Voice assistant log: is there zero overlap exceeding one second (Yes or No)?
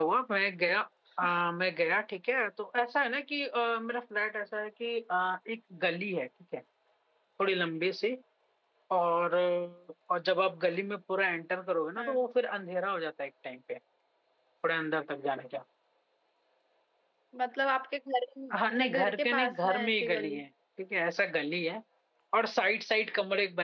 No